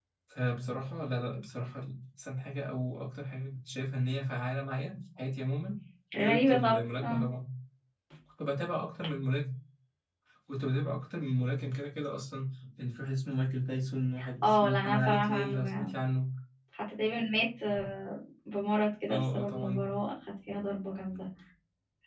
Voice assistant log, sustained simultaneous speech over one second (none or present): present